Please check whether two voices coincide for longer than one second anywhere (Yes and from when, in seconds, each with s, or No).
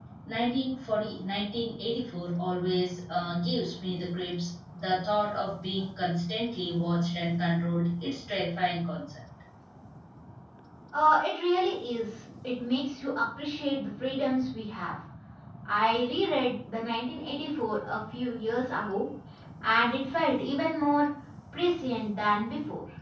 No